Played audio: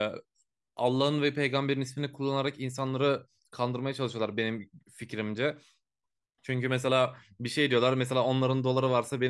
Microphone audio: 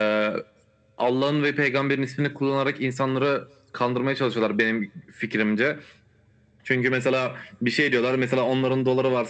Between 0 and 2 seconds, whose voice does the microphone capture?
echo only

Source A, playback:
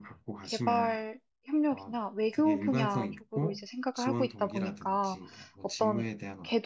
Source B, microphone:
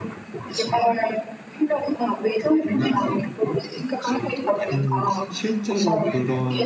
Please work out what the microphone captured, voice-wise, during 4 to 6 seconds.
both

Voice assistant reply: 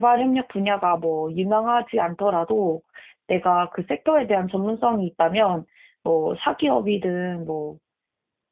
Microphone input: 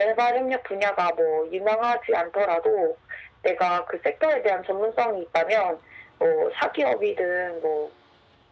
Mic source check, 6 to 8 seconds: echo only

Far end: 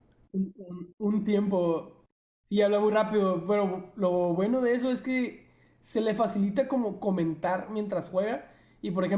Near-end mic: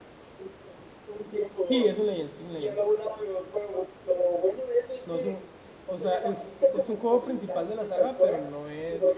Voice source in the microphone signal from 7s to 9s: both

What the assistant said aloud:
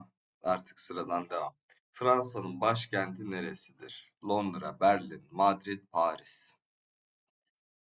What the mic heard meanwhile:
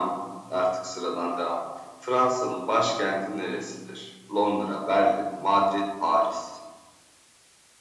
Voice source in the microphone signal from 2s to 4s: echo only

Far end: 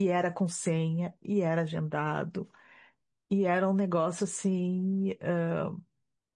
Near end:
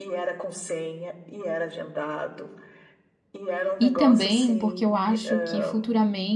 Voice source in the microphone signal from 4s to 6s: both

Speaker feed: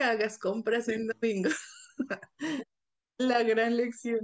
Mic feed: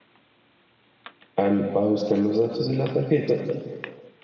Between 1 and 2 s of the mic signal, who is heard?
user only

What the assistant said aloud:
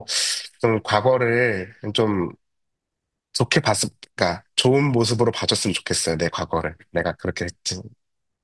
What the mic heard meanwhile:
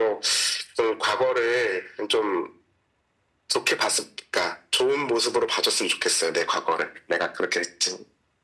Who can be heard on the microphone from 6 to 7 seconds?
echo only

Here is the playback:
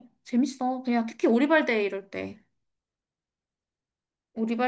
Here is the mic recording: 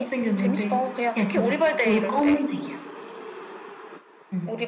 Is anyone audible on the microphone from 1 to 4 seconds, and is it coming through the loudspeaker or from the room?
both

